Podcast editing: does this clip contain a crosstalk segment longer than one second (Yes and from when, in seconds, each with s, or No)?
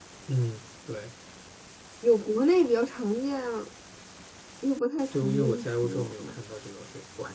Yes, from 5.1 s